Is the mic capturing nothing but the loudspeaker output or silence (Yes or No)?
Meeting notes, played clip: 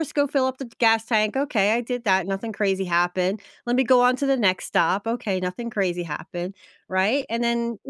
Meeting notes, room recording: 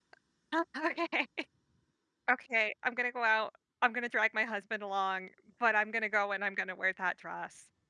No